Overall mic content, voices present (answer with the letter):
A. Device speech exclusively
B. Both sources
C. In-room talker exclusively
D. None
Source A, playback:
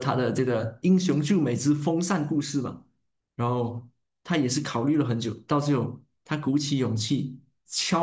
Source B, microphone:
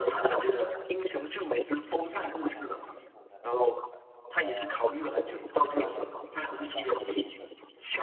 B